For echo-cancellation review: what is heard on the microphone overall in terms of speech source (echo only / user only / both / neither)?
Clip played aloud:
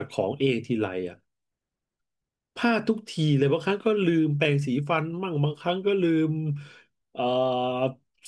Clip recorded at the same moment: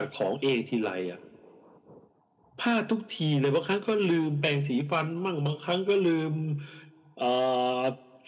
echo only